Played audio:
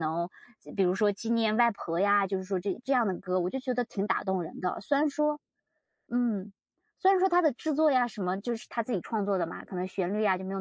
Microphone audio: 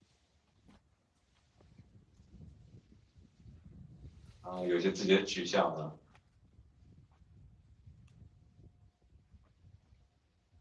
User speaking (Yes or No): Yes